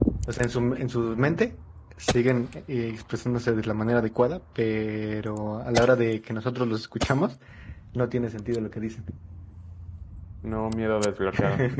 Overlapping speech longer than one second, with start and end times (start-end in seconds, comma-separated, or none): none